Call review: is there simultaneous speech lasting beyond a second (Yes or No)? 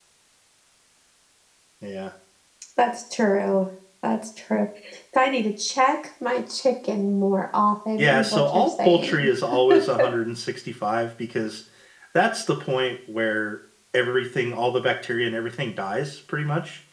Yes